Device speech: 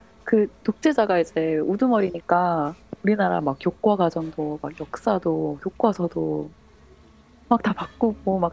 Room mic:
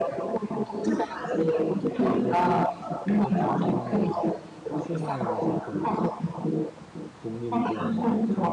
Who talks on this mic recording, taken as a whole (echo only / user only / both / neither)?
both